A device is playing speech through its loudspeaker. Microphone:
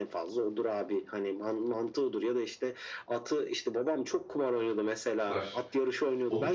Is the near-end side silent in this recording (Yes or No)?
No